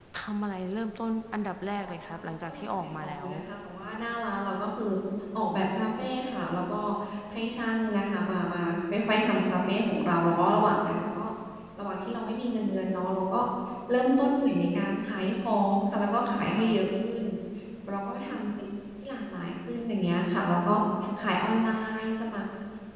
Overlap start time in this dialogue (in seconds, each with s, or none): 1.8 s